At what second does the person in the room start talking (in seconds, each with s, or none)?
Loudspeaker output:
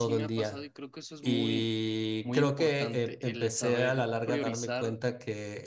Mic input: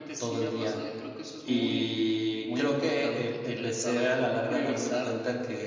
none